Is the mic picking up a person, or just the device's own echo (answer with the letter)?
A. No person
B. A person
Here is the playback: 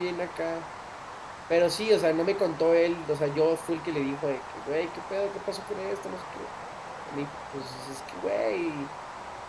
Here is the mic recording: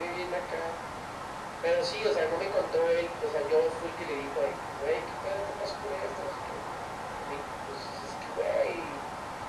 A